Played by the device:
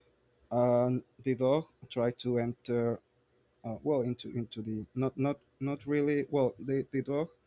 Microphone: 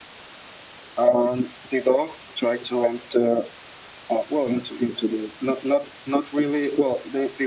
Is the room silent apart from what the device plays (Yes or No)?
Yes